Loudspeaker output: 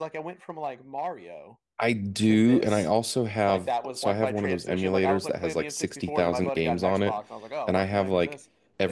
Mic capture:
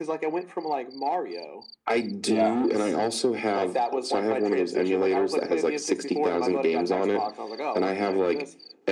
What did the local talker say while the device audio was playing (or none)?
Yeah.